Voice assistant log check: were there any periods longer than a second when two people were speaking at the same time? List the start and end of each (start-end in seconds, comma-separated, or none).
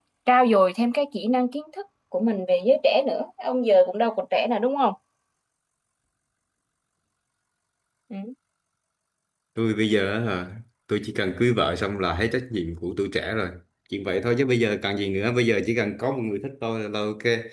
none